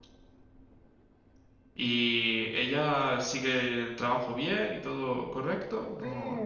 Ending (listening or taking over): taking over